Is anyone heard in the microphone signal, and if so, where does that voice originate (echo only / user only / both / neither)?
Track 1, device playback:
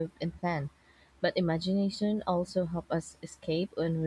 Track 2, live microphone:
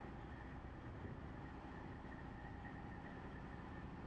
neither